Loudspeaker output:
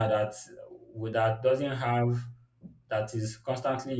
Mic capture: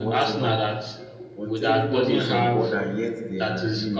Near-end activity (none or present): present